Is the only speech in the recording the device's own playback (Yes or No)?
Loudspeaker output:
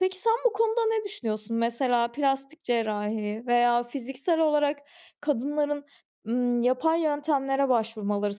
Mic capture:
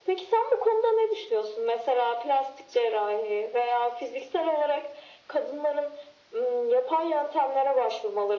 Yes